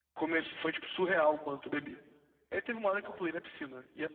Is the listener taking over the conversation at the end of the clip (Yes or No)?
No